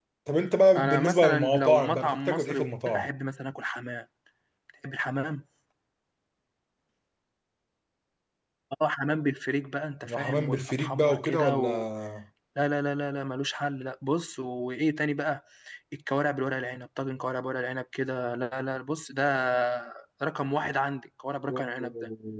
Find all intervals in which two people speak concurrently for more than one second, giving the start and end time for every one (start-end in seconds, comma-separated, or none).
0.8-3.1, 10.1-11.6